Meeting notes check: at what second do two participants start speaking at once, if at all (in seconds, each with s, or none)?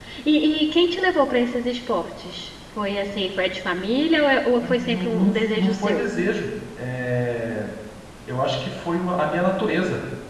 4.6 s